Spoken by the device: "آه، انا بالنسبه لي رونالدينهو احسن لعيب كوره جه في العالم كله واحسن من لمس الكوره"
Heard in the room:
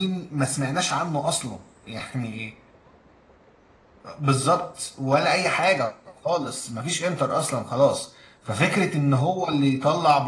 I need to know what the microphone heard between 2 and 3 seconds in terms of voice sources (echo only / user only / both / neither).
user only